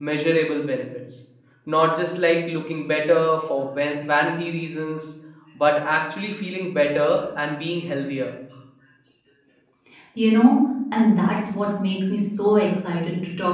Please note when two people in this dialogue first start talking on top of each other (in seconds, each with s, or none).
none